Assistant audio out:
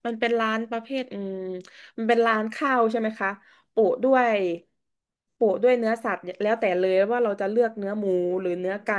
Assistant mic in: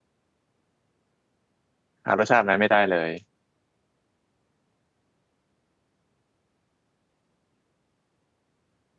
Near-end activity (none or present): present